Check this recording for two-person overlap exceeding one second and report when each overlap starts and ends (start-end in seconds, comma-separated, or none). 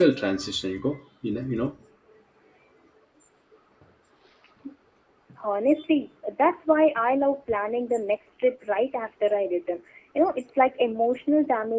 none